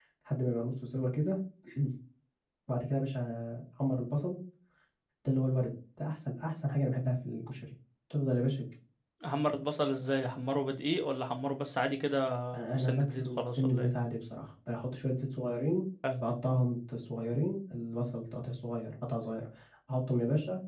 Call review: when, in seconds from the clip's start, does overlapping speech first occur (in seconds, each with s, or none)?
12.6 s